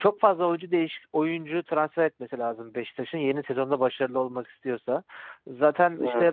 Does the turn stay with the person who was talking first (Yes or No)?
Yes